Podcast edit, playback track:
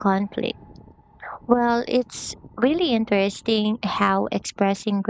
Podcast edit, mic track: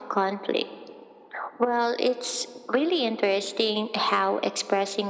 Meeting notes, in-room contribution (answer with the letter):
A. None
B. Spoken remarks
A